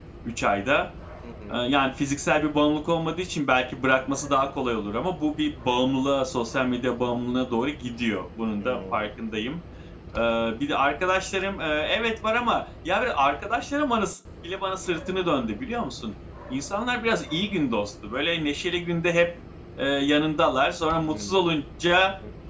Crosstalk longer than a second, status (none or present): none